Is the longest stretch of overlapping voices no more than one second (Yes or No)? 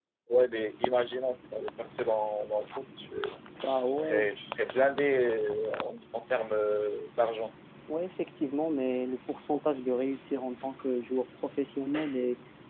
Yes